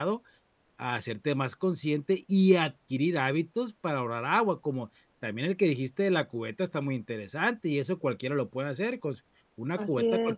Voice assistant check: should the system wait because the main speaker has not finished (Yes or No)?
Yes